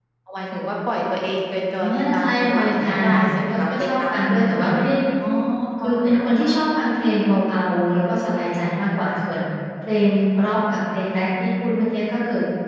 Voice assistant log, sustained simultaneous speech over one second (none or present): present